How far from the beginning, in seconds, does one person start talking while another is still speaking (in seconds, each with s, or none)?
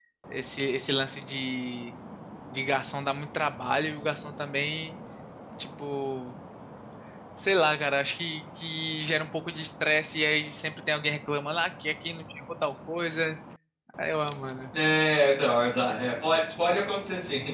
none